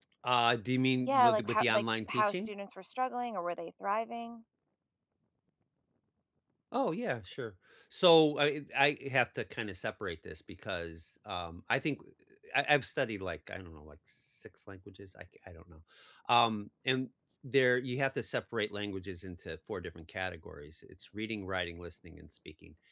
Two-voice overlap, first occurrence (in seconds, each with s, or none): 1.1 s